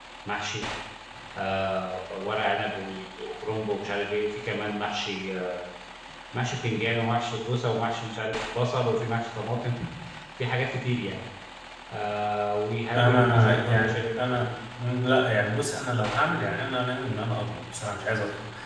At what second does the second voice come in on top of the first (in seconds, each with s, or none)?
12.9 s